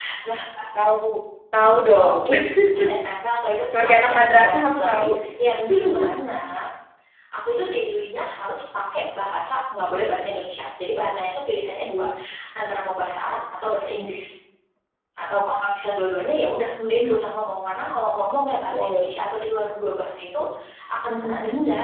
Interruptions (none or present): present